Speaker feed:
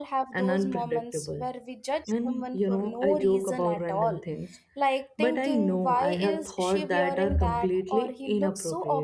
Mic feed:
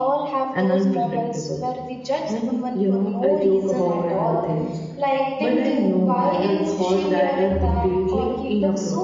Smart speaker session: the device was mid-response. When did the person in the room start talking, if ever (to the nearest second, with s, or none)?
none